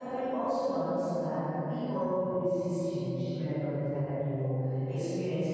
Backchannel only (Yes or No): Yes